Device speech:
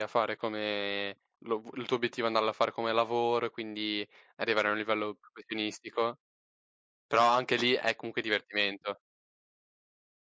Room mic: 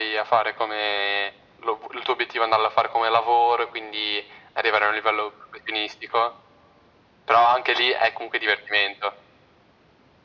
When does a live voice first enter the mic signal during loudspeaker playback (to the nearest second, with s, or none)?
none